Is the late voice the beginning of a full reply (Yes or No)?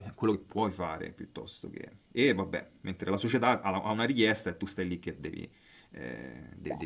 No